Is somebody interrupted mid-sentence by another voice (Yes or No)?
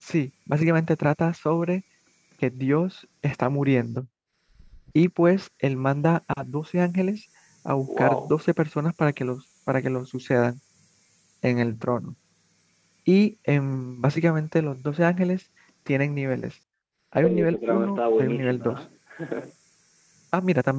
Yes